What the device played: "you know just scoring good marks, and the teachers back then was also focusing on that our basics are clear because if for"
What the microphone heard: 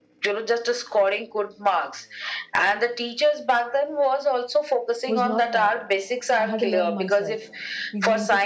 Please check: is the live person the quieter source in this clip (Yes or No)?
Yes